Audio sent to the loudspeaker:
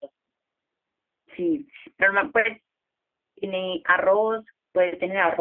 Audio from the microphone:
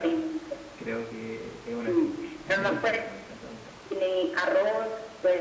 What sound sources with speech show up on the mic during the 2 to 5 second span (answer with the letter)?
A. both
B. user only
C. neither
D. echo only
A